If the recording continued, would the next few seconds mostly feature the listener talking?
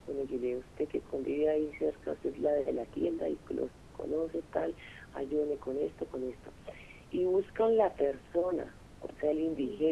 No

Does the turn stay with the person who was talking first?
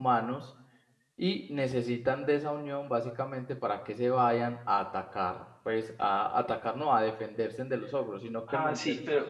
No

